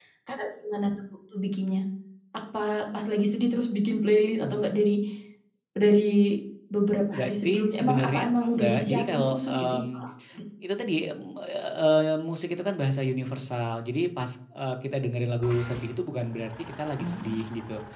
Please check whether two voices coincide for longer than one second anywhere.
Yes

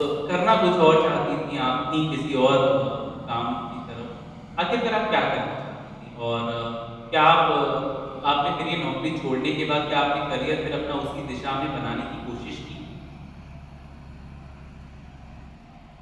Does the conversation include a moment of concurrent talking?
No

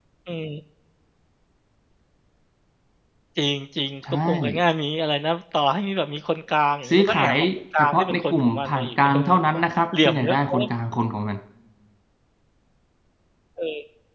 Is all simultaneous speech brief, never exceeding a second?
No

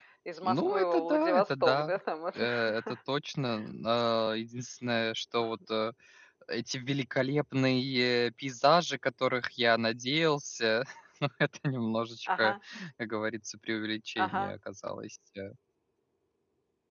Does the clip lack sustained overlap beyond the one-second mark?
No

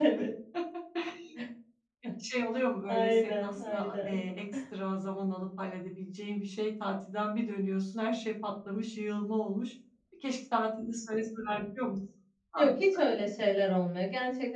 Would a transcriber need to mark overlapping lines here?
Yes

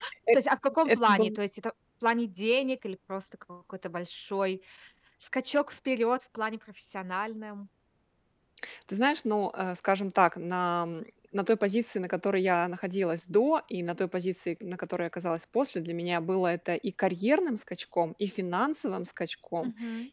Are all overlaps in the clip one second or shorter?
Yes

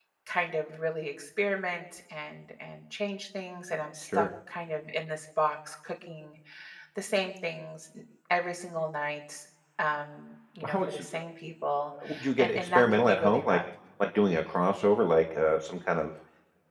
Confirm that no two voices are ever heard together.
No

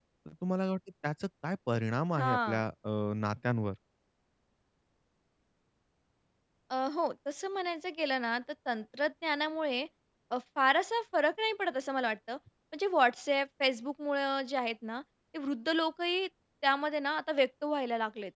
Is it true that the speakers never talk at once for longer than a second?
Yes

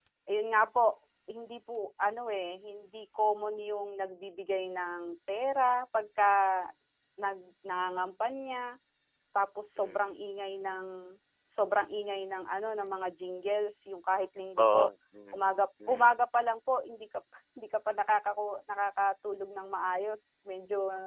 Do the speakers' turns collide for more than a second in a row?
No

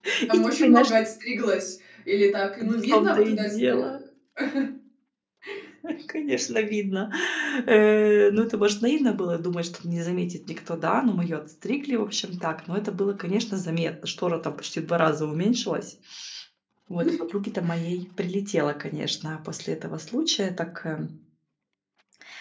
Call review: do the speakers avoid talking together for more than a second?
No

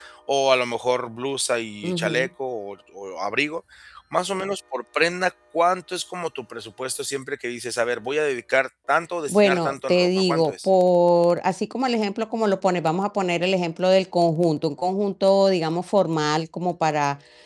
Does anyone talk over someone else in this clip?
Yes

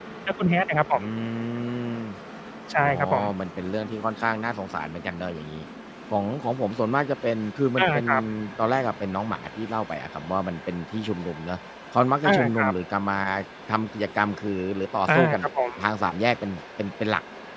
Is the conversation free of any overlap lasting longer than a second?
Yes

